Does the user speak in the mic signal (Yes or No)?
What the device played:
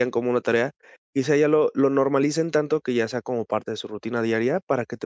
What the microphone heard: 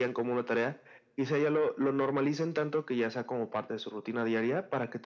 No